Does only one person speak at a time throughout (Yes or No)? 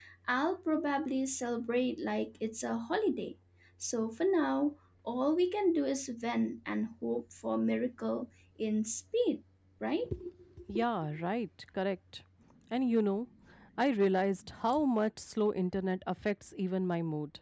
Yes